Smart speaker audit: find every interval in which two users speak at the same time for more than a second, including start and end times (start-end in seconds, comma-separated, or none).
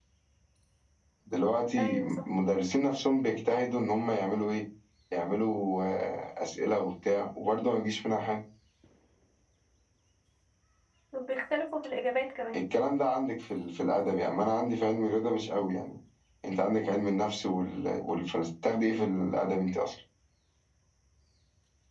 none